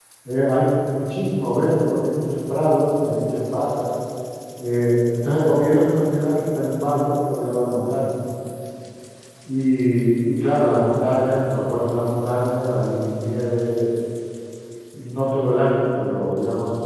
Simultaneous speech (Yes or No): No